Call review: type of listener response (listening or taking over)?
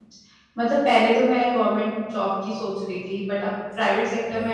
listening